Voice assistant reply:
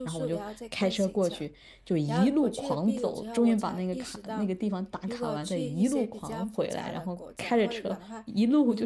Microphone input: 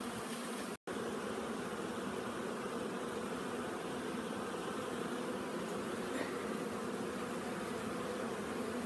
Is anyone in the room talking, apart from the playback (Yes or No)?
No